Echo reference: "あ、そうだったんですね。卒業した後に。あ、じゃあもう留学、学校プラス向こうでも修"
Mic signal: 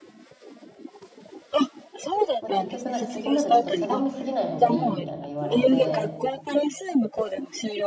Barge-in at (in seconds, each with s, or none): 2.4 s